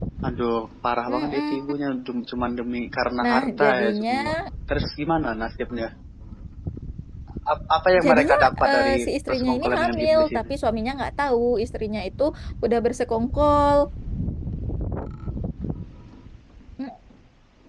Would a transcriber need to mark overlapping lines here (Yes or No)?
Yes